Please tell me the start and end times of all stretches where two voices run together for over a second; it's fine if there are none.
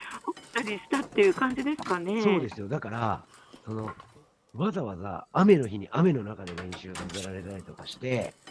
none

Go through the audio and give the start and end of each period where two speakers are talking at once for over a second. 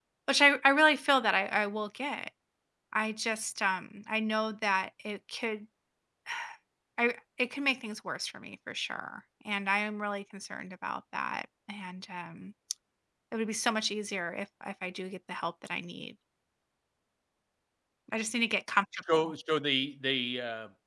none

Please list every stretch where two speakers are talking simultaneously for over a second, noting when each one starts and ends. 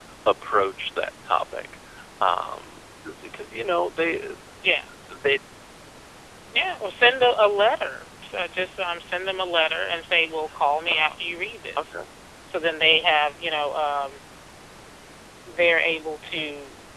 none

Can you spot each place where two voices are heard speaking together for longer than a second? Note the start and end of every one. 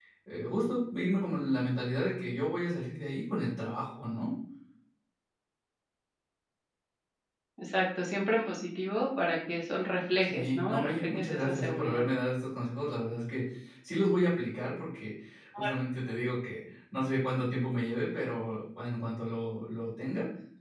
10.2-12.0

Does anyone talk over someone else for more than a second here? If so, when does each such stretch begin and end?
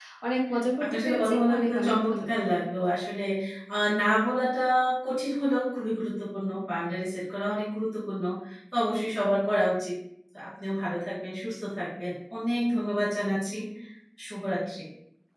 0.8-2.3

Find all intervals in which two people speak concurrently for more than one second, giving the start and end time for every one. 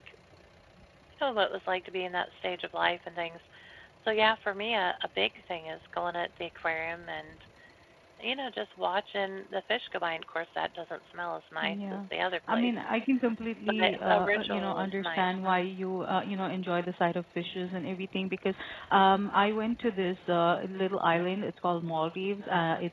13.7-15.3

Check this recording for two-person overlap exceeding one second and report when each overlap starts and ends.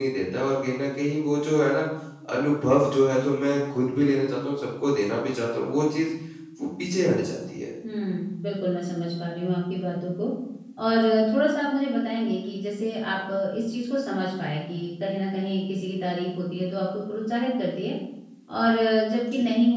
none

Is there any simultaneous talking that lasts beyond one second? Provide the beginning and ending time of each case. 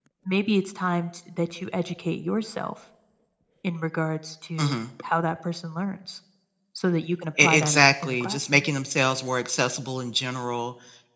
7.4-8.6

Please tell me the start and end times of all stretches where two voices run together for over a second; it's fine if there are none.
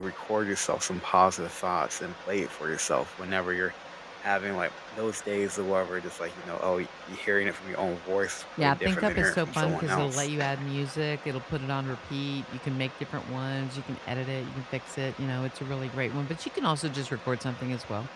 8.6-10.3

